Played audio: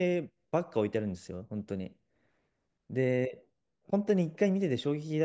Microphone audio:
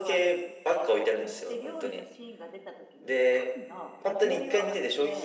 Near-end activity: present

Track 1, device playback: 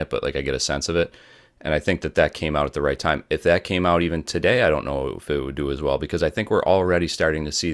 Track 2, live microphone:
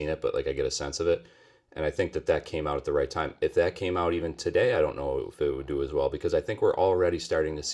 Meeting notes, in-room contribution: none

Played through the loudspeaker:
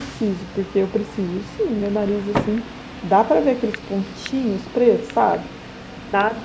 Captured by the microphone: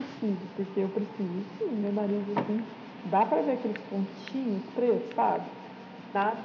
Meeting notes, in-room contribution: none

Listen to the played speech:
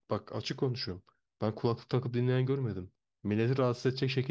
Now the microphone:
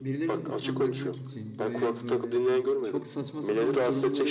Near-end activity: present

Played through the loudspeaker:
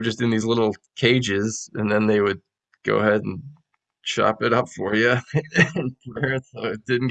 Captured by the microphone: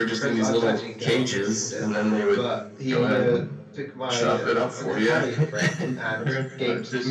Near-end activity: present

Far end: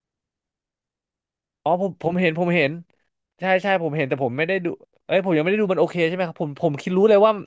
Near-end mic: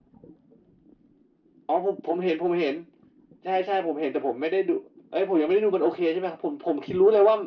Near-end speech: none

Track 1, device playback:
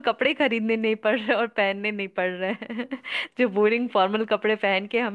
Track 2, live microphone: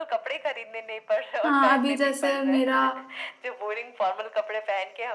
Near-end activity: present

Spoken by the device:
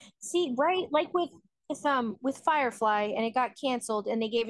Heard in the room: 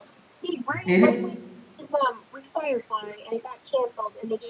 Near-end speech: present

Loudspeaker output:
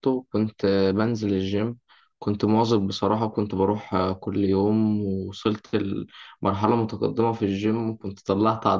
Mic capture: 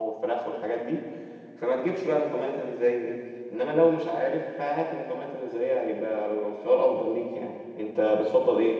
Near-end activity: present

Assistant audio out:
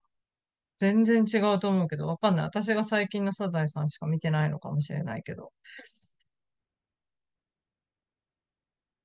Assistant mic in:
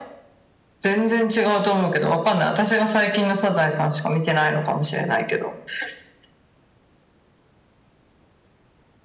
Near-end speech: none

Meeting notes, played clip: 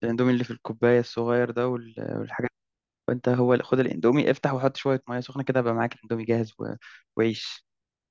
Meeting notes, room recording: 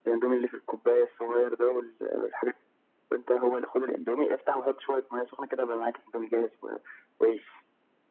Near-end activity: none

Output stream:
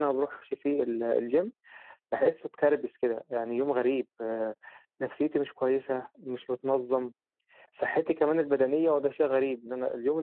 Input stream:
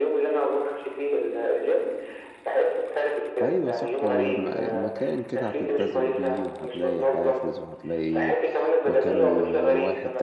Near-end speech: present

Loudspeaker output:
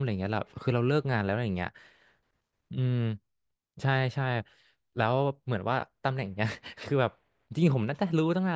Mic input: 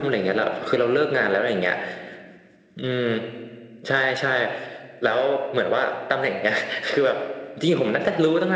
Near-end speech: none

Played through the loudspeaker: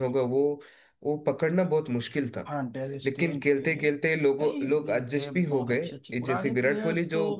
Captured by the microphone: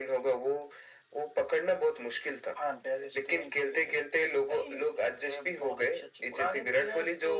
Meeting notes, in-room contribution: none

